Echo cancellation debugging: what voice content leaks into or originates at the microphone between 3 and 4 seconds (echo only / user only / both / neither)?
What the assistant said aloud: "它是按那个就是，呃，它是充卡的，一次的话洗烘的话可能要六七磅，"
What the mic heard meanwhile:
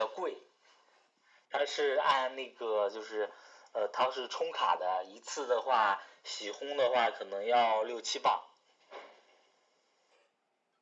echo only